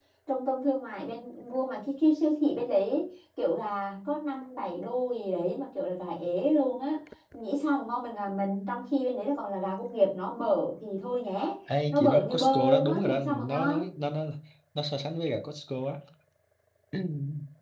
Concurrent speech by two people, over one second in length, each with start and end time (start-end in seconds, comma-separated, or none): 11.9-13.8